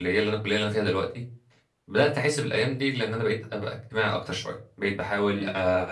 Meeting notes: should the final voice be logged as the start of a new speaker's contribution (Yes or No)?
No